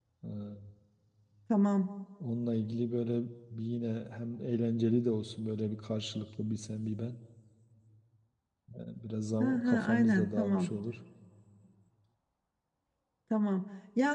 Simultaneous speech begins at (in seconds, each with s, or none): 9.4 s